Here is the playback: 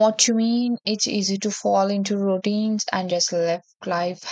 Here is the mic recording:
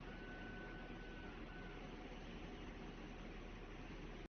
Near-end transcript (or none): none